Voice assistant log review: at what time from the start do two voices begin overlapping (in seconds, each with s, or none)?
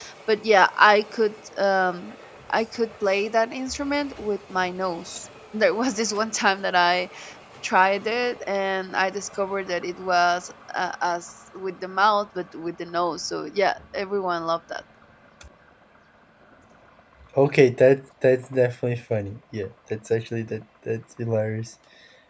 none